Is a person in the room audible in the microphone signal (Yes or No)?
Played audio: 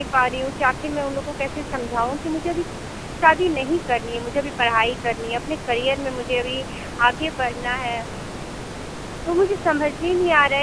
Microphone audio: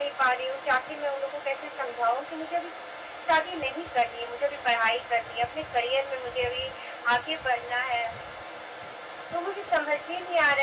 No